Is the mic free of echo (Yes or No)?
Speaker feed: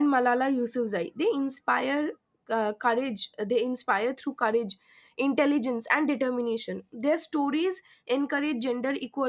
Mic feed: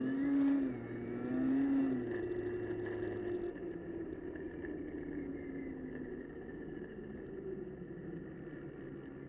Yes